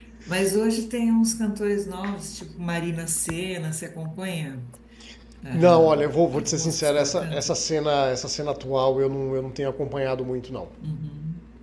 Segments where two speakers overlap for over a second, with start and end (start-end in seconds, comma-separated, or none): 5.5-7.5